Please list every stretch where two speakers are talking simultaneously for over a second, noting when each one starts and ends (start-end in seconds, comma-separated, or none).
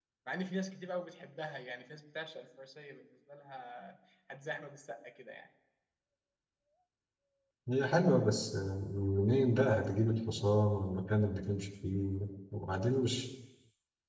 none